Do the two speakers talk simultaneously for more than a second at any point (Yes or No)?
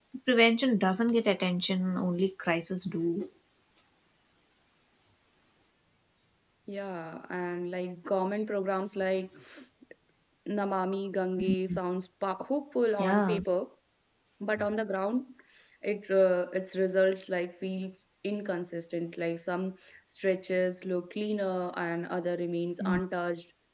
No